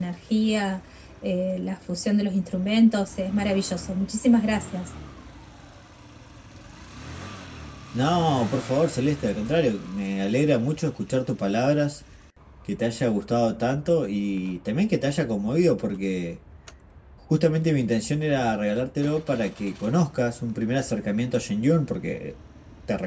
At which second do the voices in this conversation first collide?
none

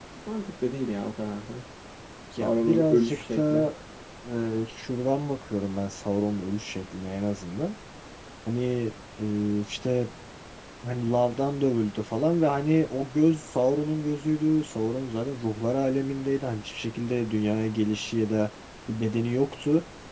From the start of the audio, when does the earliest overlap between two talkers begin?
2.4 s

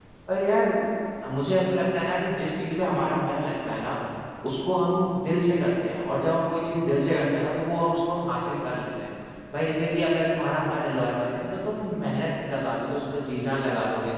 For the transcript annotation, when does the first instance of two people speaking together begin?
none

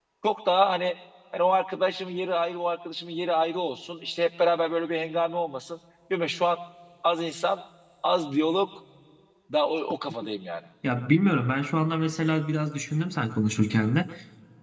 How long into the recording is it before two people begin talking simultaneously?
none

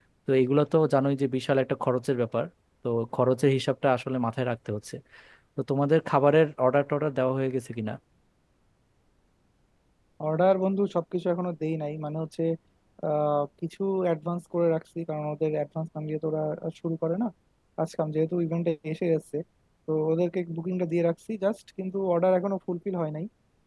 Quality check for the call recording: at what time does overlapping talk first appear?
none

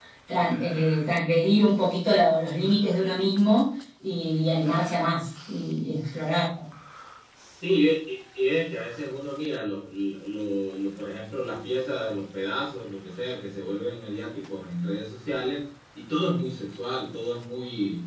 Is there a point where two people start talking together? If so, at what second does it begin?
none

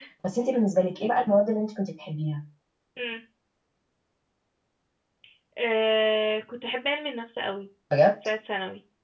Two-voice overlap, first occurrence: none

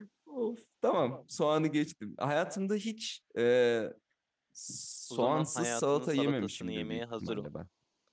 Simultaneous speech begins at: 5.1 s

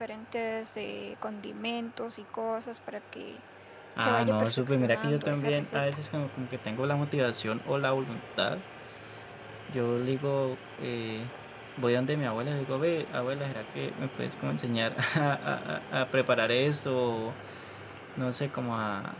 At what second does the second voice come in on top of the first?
4.0 s

